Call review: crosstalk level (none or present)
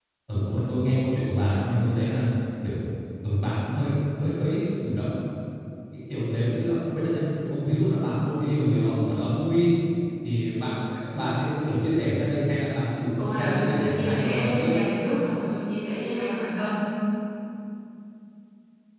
present